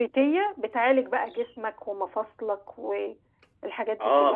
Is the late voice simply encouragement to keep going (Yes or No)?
No